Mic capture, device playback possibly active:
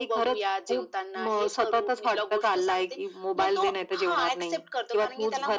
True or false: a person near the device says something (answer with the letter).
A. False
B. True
A